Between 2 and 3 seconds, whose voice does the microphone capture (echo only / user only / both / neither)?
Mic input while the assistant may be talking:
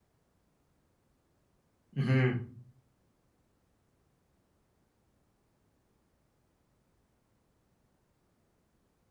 user only